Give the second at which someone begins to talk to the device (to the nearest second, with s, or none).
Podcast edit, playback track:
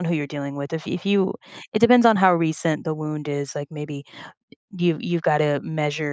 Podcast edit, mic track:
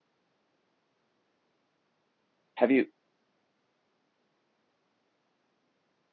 3 s